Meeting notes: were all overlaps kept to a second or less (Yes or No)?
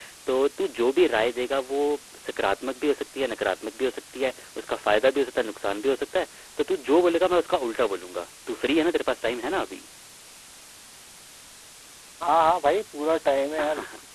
Yes